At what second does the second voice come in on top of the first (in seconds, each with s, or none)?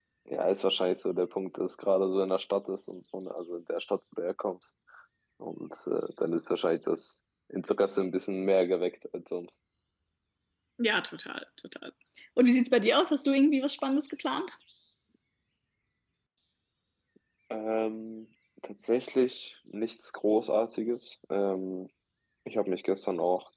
none